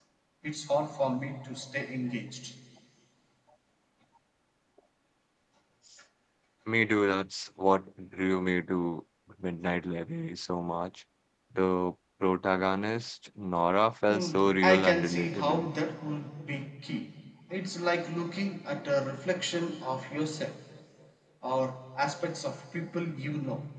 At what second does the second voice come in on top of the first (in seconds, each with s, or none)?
14.1 s